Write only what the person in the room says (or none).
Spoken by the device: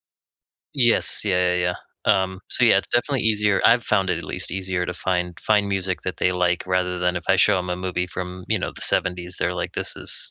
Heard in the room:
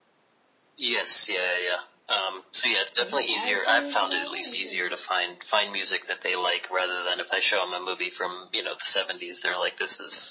And, the characters and all this, and